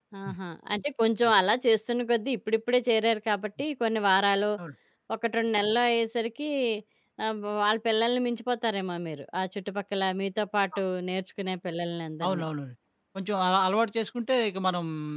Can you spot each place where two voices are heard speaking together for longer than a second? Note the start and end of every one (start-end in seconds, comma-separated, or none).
none